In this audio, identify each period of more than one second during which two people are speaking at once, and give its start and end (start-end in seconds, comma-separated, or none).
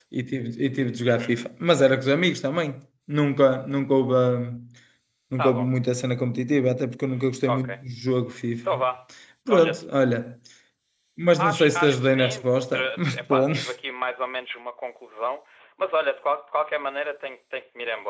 11.4-13.6